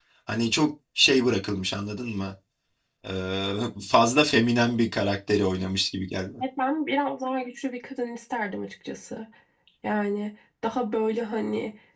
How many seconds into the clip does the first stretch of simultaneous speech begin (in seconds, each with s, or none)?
none